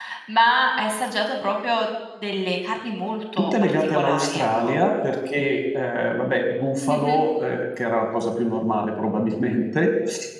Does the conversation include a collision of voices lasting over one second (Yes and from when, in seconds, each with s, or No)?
Yes, from 3.4 s